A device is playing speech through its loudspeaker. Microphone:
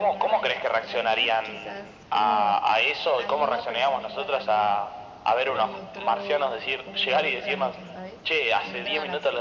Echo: present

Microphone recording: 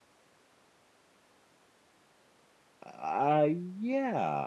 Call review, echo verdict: none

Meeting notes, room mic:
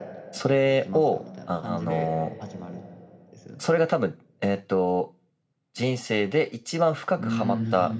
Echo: present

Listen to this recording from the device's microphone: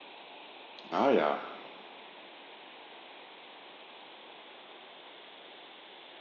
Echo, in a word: none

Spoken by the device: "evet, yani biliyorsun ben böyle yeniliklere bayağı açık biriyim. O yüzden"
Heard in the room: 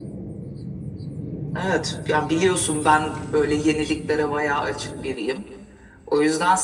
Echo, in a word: present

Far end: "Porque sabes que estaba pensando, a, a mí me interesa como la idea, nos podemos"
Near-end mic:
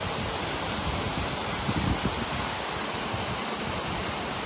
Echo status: none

